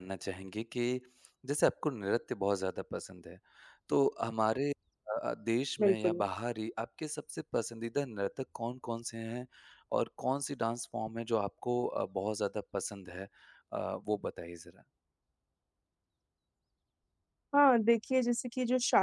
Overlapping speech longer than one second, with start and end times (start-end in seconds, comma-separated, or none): none